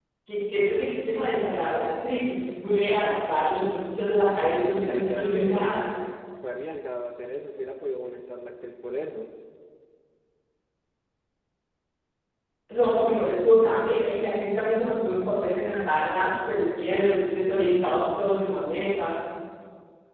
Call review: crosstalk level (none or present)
present